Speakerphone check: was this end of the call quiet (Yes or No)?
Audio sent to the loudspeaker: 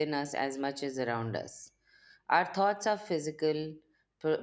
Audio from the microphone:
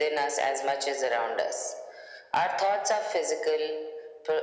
Yes